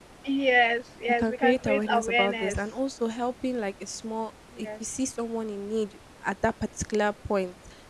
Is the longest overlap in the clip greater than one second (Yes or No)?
Yes